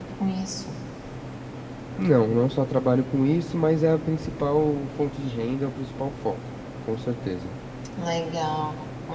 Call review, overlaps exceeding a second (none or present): none